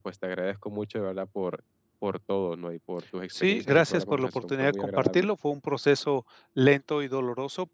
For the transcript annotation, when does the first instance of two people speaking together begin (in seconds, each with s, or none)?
3.3 s